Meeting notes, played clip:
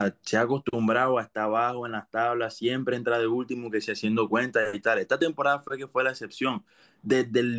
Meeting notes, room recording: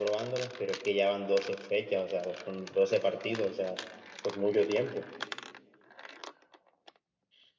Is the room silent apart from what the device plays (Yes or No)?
No